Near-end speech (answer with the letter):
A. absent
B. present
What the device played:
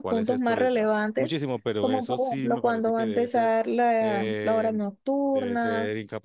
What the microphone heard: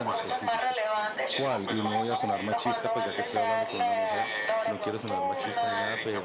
B